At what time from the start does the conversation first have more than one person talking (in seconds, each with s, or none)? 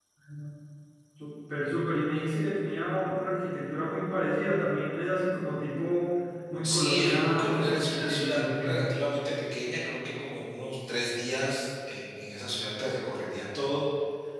6.6 s